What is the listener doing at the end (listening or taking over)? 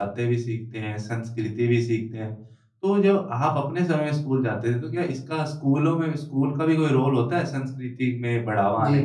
taking over